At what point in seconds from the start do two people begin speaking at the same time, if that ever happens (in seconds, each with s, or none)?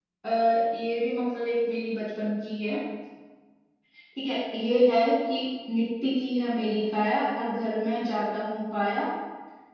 none